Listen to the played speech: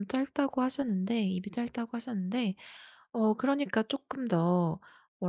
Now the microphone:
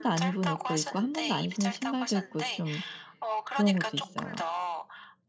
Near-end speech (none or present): present